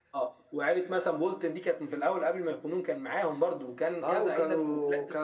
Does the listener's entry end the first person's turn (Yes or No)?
Yes